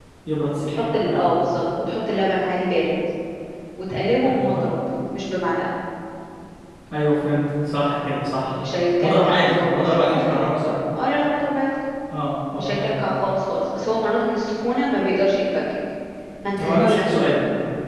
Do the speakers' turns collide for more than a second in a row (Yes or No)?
Yes